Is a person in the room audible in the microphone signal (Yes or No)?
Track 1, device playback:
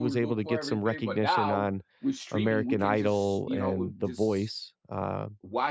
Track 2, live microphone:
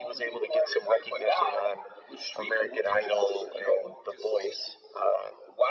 No